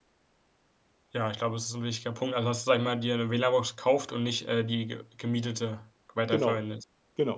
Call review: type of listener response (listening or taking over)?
taking over